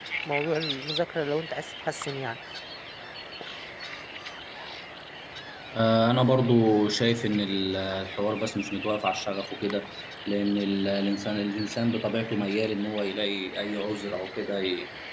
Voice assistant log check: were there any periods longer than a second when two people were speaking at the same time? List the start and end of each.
none

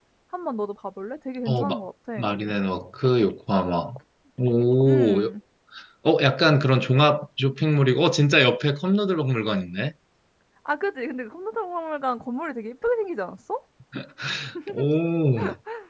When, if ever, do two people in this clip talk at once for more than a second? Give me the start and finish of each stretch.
none

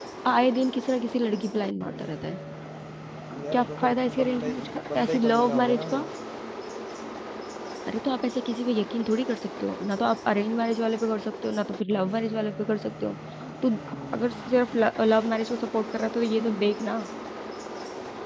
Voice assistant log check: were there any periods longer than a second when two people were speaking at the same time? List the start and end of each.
3.5-6.0

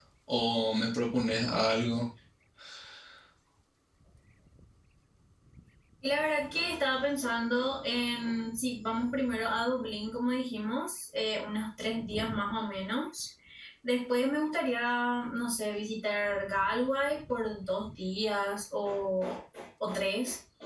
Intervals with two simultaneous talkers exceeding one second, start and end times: none

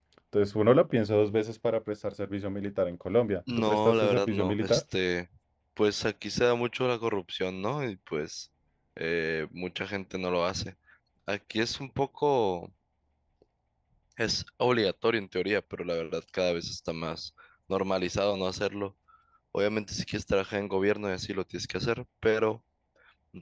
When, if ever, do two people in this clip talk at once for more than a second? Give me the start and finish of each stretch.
3.6-4.8

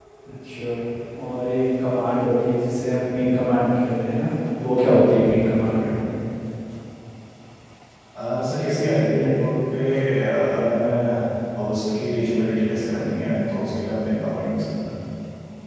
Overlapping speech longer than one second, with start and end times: none

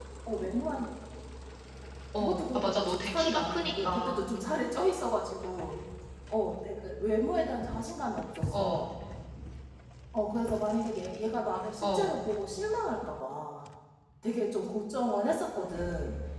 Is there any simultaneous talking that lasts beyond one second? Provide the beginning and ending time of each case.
2.2-4.2

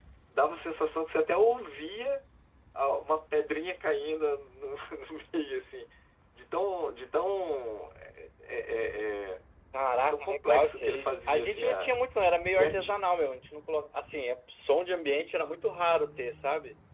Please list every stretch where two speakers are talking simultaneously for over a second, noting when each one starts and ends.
10.0-12.0

